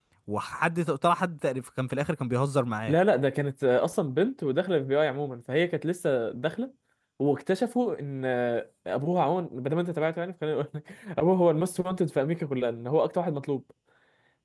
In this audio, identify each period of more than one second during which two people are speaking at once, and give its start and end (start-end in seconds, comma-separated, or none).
none